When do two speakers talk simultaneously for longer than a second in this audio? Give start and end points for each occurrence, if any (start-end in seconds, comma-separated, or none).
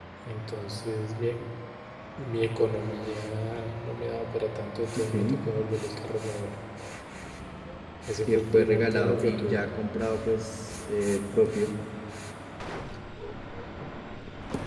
8.3-9.6